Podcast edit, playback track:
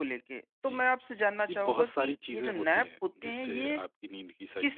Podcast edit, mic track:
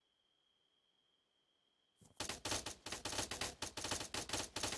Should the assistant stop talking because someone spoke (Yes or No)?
No